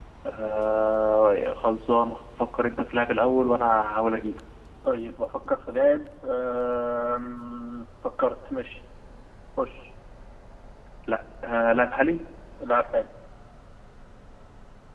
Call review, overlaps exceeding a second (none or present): none